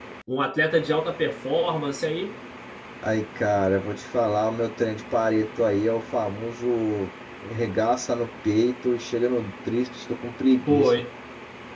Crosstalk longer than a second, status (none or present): none